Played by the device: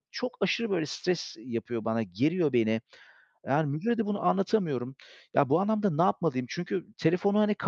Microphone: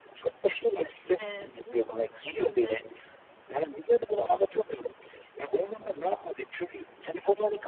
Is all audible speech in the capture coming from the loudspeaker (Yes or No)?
No